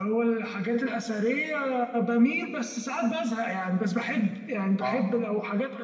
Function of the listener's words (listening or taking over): listening